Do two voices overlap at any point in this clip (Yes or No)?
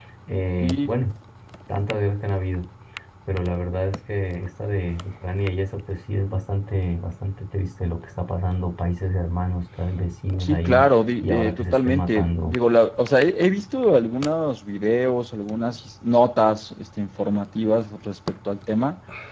Yes